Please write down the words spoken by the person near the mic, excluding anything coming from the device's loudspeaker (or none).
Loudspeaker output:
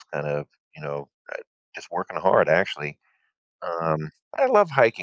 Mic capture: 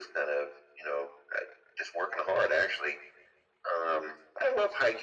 none